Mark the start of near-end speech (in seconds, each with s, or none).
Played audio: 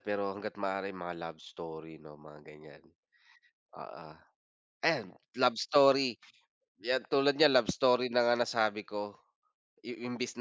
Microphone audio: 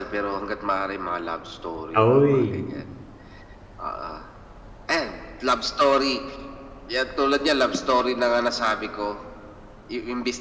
1.9 s